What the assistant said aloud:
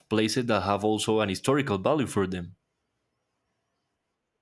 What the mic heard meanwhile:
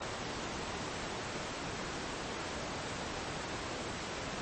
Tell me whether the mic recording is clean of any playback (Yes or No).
Yes